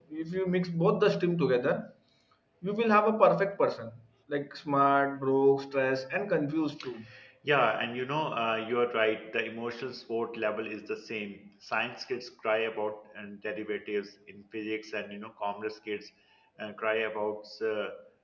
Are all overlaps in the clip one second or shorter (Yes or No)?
Yes